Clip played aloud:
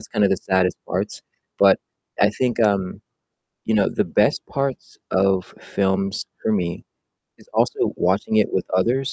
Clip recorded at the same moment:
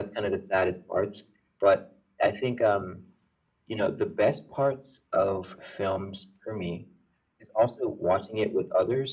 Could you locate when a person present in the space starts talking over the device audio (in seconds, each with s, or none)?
none